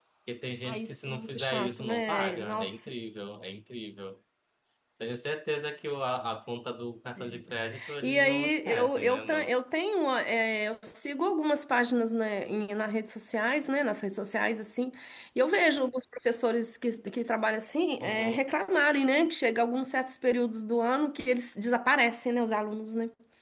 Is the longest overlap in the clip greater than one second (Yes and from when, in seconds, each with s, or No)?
Yes, from 0.6 s